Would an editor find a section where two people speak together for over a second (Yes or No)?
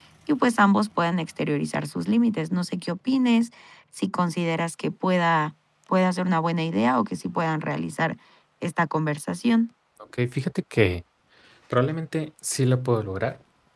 No